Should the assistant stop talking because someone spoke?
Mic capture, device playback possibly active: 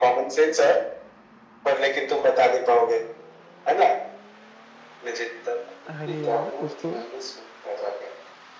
Yes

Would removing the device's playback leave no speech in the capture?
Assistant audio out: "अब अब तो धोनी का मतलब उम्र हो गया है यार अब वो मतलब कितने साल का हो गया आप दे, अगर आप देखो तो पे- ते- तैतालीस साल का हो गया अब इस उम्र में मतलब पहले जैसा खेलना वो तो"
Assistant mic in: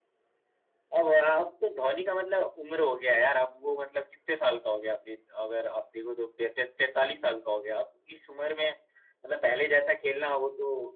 Yes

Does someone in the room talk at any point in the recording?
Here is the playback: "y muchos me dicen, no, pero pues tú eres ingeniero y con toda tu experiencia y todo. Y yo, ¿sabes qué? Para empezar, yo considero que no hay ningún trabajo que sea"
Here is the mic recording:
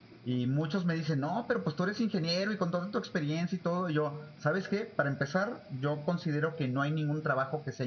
No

